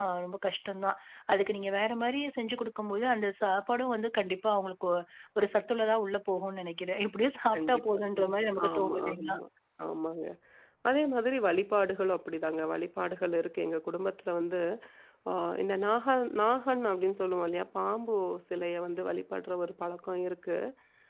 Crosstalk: present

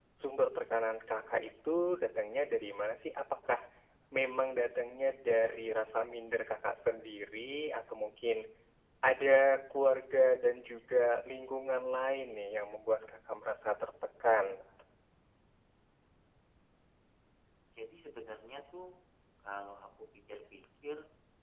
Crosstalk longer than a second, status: none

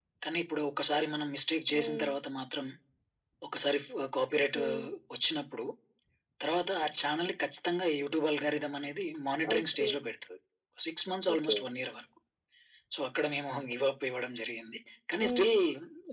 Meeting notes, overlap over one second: none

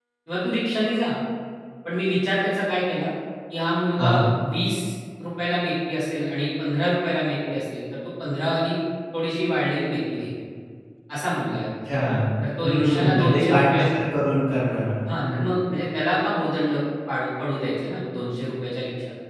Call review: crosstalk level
present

